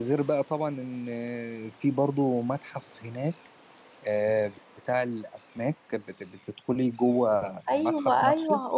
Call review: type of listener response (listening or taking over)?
taking over